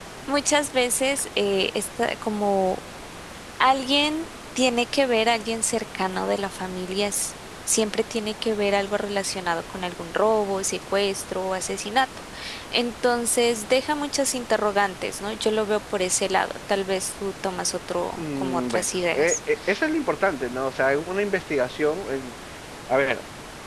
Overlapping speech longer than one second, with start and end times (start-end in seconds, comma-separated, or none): 18.2-19.4